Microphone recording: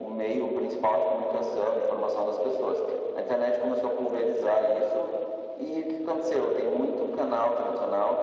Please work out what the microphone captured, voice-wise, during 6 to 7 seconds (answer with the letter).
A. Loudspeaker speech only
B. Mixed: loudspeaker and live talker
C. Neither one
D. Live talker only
A